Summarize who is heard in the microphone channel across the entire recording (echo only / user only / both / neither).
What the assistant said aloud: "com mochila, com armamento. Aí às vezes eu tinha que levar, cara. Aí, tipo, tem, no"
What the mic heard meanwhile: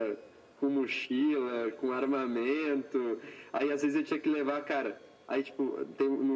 echo only